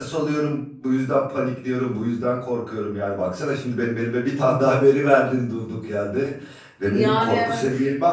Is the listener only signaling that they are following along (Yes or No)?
Yes